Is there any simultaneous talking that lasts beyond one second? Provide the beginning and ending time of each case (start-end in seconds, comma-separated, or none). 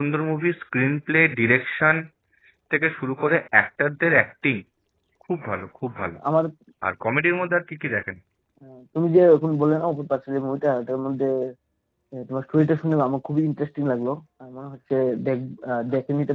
none